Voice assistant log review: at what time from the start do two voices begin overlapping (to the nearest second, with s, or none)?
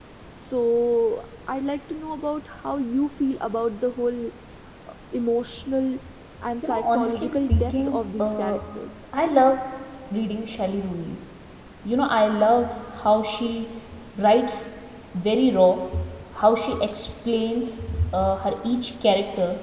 7 s